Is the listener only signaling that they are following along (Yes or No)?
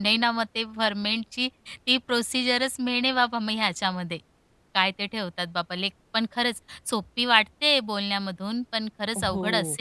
No